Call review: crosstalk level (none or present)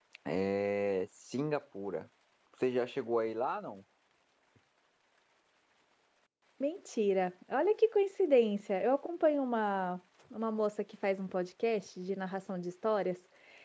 none